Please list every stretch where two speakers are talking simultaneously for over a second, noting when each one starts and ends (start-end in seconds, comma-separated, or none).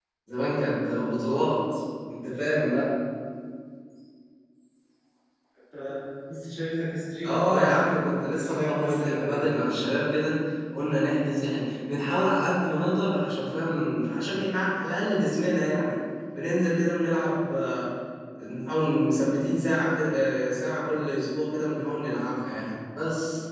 7.2-9.5